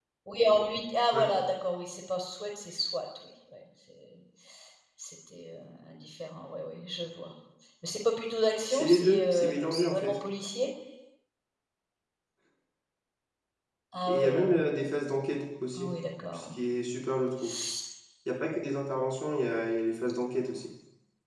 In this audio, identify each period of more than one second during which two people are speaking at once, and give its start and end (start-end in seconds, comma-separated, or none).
8.7-10.1